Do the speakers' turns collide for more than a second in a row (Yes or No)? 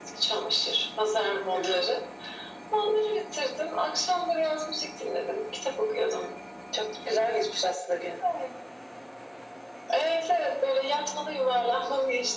No